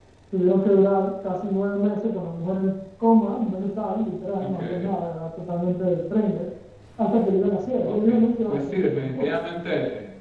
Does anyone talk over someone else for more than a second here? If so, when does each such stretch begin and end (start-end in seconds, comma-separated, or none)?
7.8-9.3